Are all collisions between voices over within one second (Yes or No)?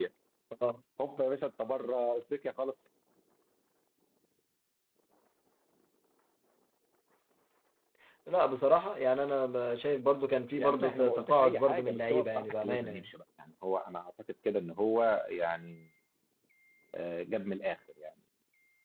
No